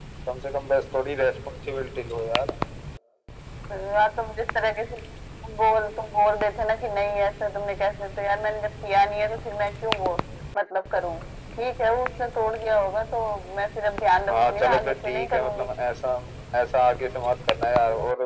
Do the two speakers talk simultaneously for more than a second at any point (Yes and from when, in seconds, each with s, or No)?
Yes, from 14.3 s